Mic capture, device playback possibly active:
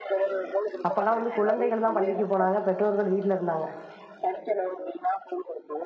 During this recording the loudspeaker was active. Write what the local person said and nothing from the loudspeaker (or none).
அப்பெல்லா வந்து குழந்தைகள் தா பள்ளிக்கி போனாங்க பெற்றோர்கள் வீட்ல இருந்தாங்க